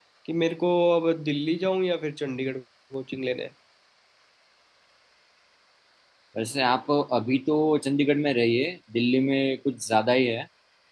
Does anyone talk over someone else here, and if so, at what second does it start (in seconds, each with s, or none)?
none